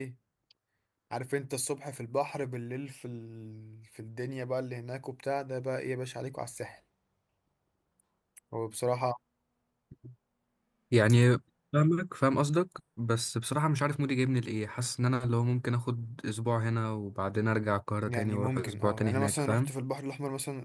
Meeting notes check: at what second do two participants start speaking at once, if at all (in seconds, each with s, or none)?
18.1 s